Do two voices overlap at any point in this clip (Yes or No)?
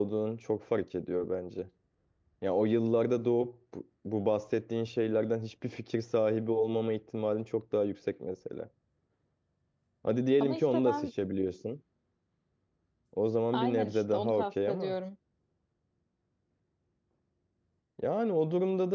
Yes